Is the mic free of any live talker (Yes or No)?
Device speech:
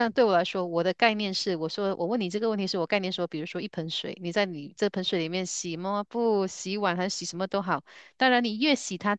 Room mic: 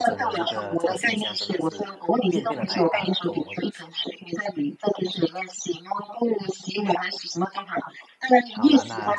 No